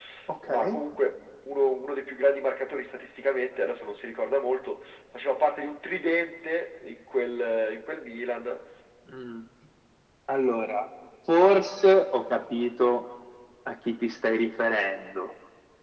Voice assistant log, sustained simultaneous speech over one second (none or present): none